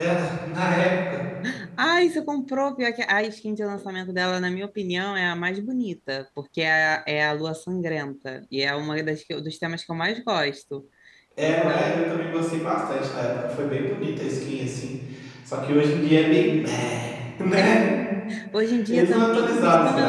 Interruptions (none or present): present